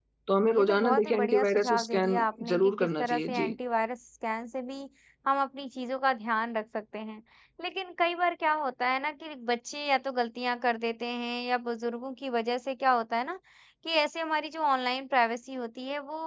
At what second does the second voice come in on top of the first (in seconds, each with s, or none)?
0.5 s